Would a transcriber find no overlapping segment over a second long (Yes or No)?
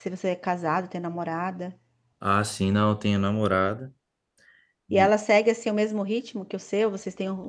Yes